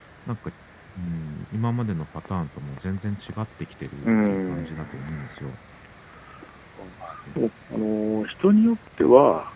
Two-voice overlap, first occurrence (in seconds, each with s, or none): 4.0 s